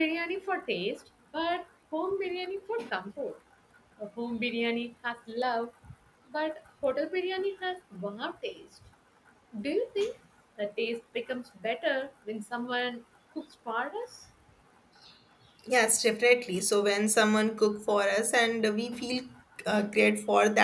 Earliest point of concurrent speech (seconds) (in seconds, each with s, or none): none